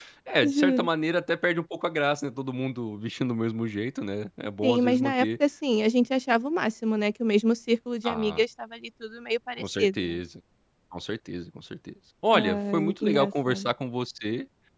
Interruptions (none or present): present